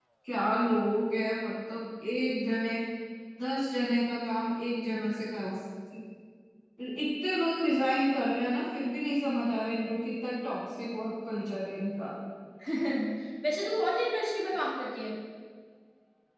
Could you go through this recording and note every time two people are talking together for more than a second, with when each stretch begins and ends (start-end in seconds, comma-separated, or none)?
none